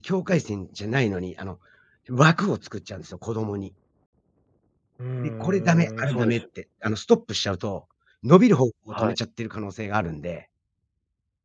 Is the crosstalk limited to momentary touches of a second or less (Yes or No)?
No